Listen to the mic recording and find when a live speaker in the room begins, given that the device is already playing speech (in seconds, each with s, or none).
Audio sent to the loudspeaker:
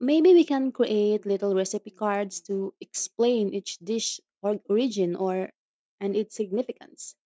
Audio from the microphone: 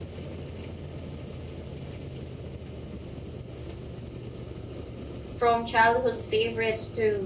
5.3 s